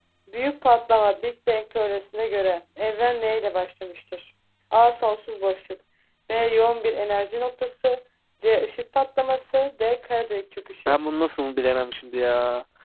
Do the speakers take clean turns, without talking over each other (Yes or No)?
Yes